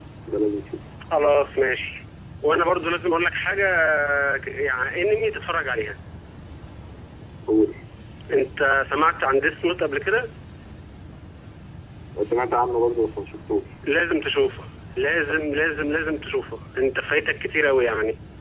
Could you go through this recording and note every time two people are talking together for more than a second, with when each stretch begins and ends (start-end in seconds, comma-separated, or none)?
none